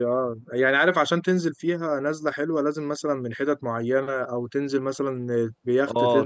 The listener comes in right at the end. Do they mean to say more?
Yes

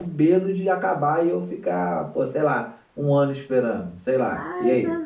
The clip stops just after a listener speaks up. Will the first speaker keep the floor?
No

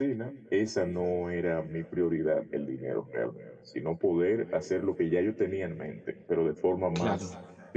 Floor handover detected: No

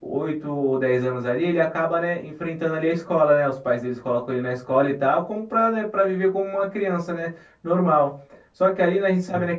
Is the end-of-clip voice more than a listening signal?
No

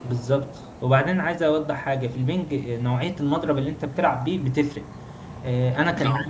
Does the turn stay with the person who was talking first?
Yes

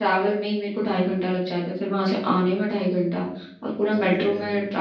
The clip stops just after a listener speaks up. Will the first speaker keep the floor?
Yes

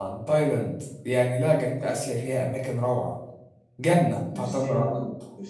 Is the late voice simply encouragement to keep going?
No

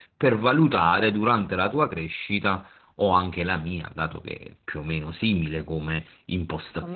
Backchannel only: Yes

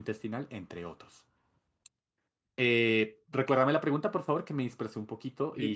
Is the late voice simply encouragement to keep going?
No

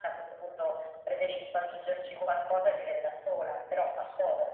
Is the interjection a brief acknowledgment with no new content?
Yes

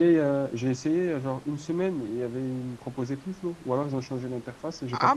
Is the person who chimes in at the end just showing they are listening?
No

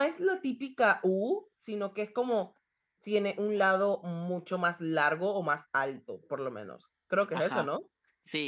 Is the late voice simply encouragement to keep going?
No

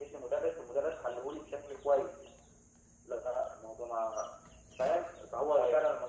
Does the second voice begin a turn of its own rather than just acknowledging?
No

